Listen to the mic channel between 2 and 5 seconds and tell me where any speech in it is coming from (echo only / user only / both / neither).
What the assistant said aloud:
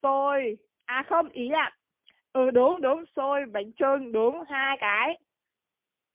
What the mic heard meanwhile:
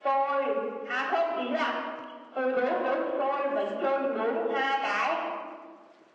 echo only